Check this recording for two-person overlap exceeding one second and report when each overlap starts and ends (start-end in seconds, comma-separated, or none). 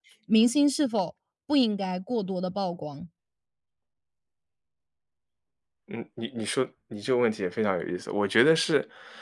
none